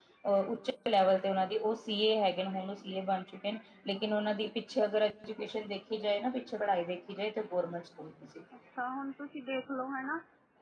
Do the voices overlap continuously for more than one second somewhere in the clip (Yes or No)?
No